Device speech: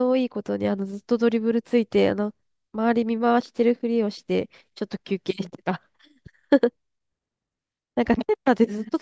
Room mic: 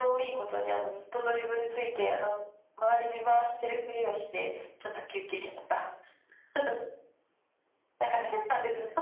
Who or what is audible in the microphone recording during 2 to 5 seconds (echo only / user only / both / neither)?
echo only